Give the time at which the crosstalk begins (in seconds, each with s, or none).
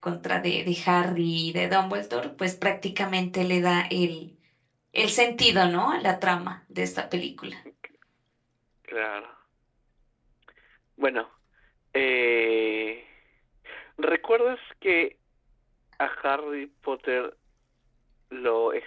none